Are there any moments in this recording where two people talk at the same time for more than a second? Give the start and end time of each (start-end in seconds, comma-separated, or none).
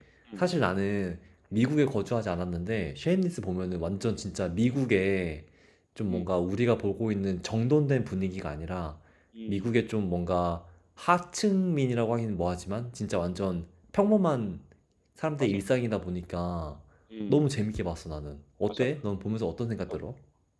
none